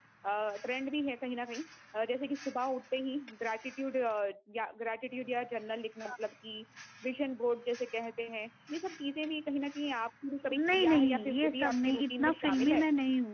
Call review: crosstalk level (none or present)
present